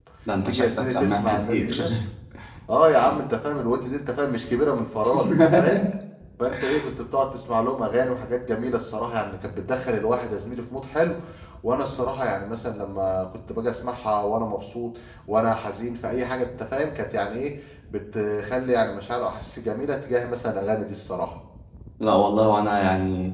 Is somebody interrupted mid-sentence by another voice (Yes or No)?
Yes